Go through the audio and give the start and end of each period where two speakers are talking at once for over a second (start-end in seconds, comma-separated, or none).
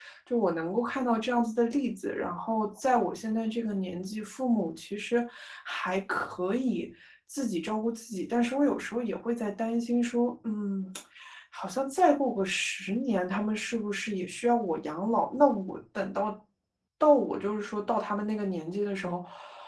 none